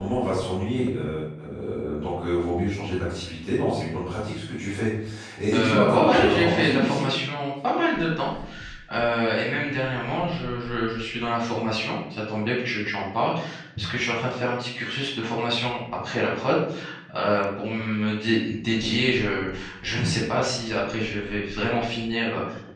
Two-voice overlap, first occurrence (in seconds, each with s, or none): 5.5 s